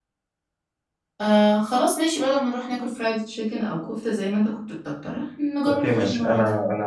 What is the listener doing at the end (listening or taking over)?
taking over